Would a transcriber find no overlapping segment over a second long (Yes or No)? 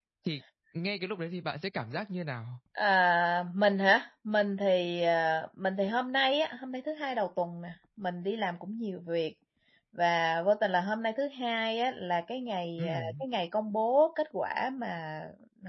Yes